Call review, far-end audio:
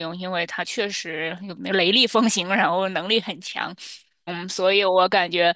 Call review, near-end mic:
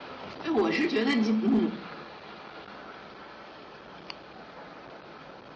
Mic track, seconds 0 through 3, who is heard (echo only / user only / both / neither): user only